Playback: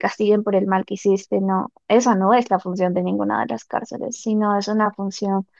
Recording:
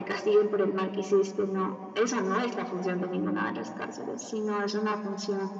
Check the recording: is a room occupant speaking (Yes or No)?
No